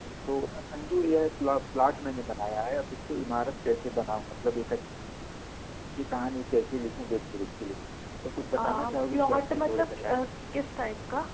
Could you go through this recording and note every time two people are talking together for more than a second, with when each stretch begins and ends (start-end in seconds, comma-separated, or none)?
8.6-10.2